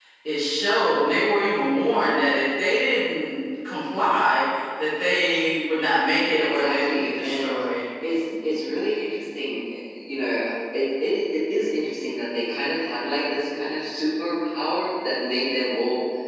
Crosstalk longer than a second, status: present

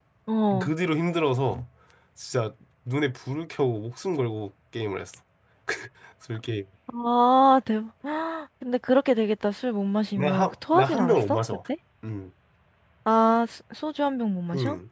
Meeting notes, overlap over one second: present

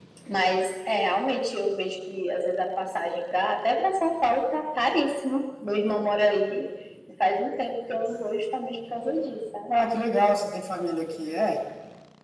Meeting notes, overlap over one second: none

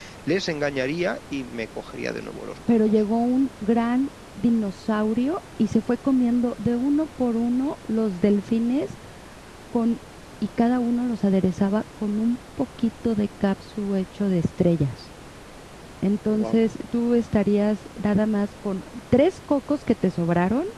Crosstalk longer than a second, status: none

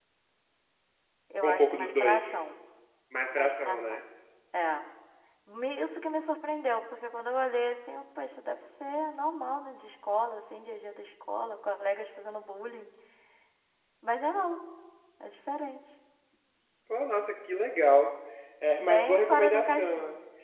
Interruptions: present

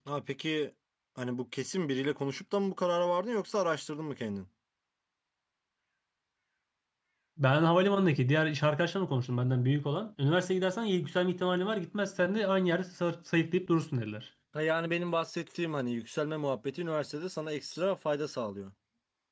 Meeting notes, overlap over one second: none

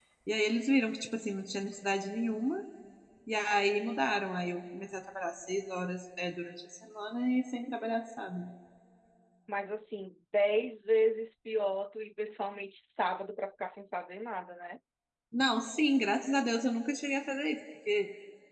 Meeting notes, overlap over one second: none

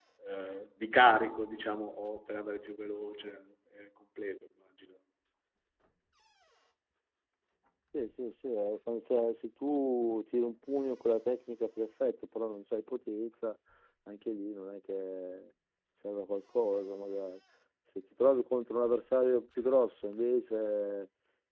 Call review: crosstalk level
none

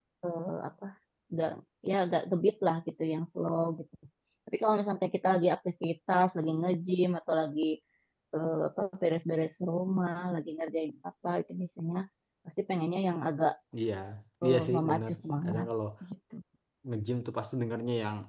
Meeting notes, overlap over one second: present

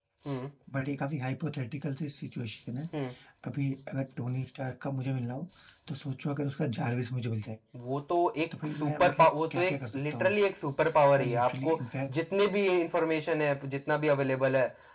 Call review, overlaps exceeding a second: present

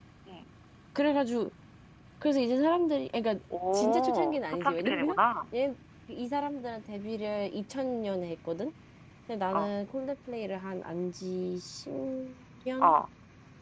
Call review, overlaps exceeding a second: present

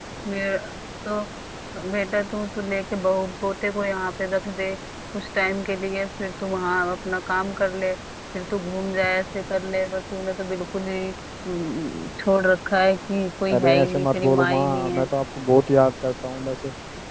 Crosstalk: present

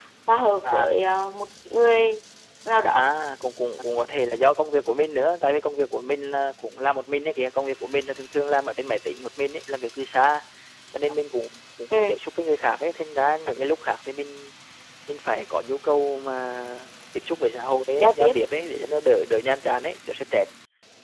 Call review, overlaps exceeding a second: none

